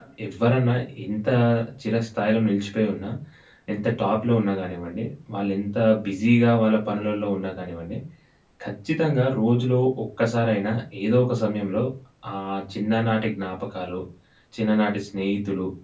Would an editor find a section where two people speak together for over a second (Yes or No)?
No